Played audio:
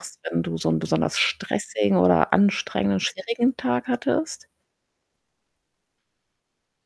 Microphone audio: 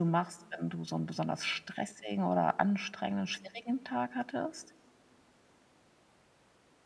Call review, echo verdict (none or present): present